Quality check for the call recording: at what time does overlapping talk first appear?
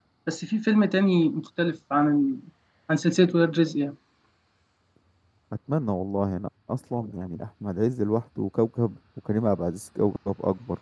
none

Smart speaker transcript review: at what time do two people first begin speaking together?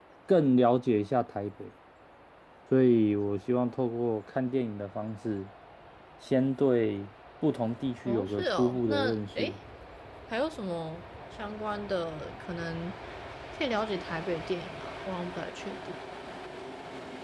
8.1 s

